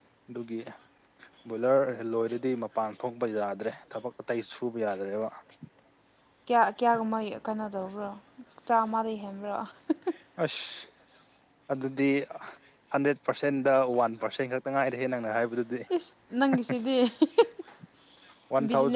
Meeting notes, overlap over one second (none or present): none